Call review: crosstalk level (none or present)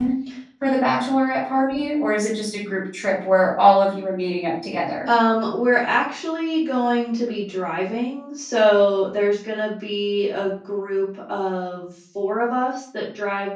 none